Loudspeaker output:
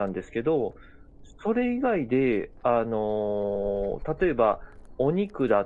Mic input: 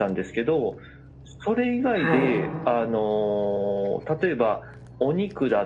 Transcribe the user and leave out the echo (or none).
はい。